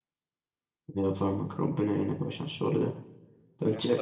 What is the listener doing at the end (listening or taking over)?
listening